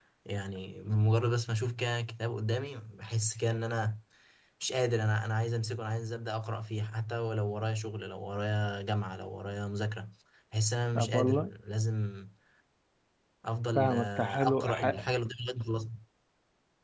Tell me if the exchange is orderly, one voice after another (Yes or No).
No